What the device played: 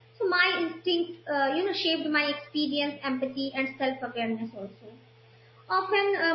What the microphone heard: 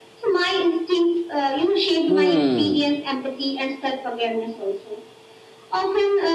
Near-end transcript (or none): Hmm.